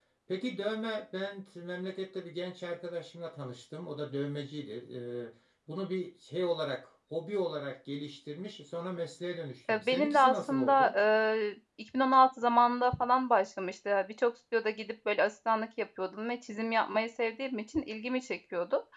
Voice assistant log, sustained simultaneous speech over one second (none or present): present